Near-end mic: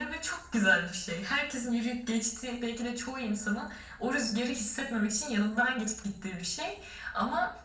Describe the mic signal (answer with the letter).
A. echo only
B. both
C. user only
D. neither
A